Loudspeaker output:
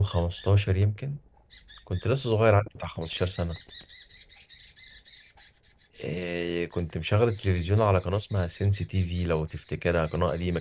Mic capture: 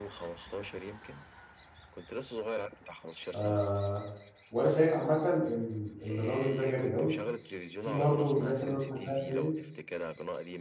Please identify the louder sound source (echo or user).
user